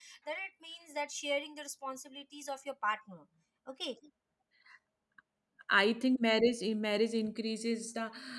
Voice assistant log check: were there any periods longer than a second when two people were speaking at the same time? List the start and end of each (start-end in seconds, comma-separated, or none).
none